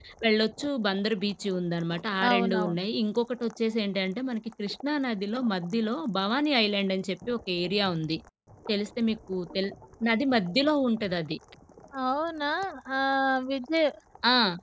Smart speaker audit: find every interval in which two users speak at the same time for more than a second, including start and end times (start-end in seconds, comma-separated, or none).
none